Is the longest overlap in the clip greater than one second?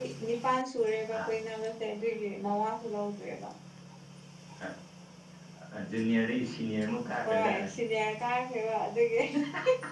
No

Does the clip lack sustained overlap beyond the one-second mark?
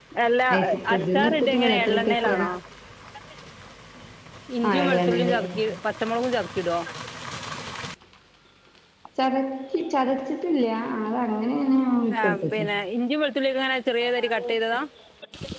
No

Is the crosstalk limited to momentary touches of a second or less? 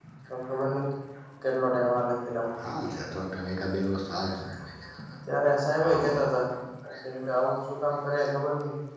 Yes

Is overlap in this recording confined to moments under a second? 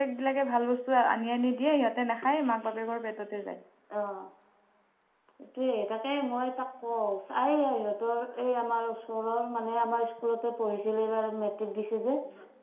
Yes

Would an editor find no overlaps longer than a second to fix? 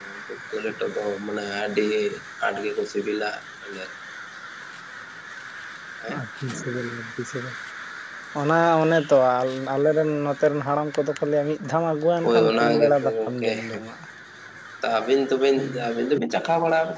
No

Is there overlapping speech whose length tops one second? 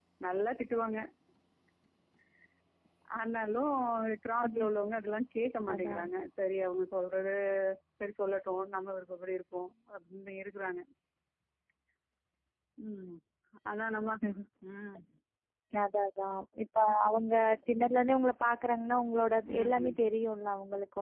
No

